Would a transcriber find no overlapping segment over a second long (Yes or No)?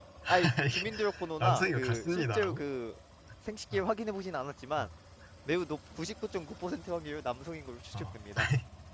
No